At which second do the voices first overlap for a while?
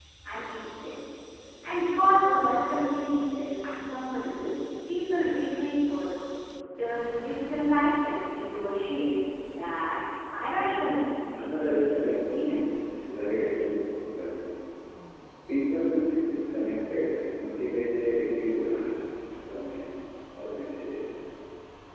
11 s

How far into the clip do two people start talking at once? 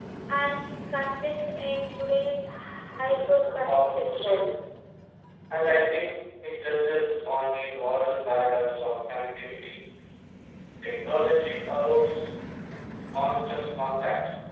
3 s

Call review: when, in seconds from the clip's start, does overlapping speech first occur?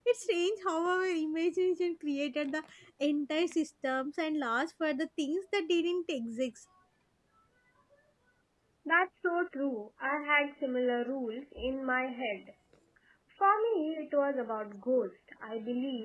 none

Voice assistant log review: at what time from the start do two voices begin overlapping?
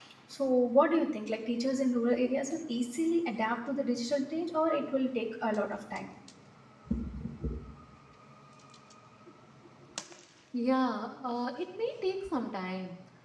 none

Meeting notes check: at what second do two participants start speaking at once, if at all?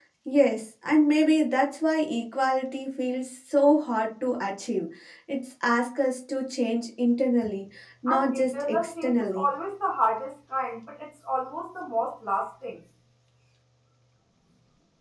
8 s

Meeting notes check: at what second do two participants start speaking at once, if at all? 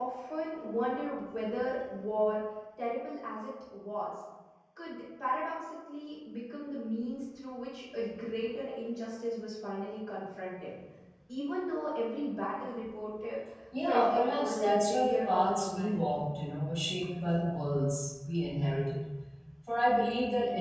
14 s

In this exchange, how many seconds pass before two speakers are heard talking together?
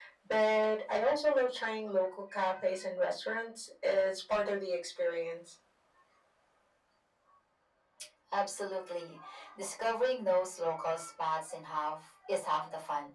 none

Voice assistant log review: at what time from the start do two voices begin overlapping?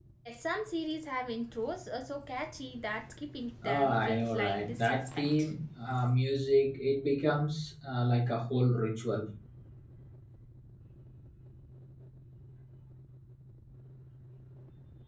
4 s

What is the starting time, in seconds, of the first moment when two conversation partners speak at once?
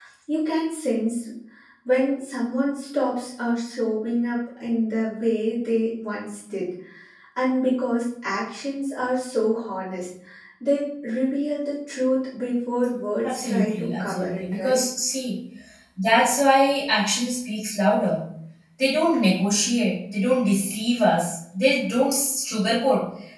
13 s

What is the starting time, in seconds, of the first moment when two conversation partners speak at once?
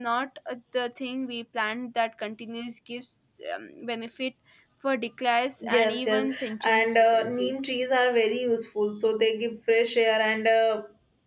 6 s

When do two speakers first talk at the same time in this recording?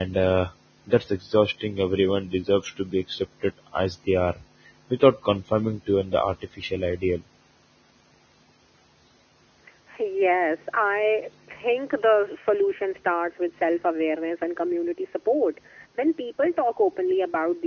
none

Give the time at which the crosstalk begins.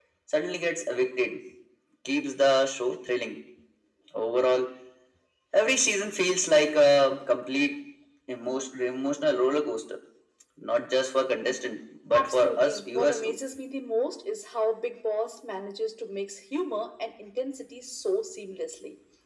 12 s

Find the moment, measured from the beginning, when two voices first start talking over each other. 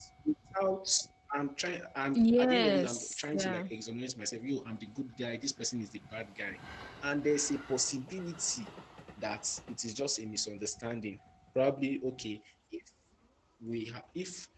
2 s

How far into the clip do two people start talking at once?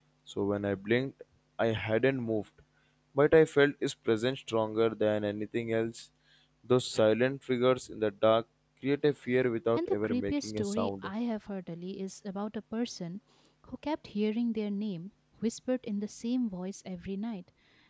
10 s

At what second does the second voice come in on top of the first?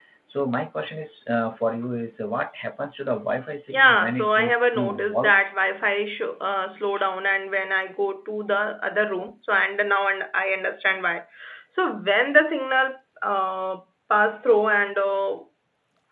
4 s

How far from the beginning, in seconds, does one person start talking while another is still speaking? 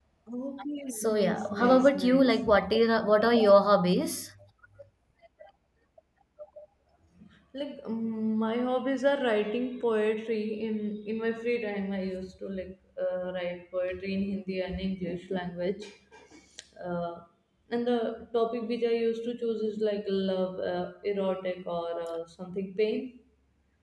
1 s

